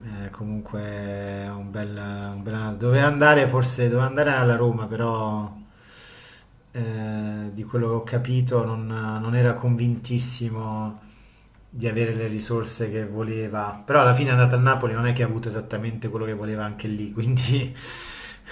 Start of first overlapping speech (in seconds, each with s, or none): none